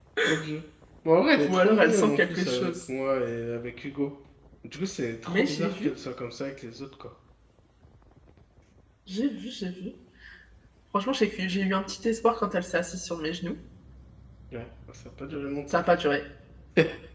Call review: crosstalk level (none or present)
present